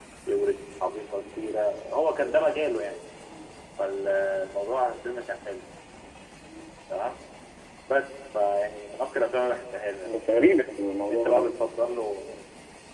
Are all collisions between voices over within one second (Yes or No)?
Yes